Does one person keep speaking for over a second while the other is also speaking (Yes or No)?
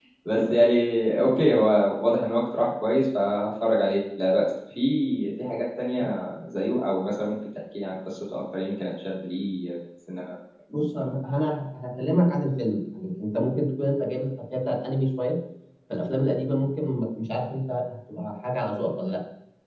No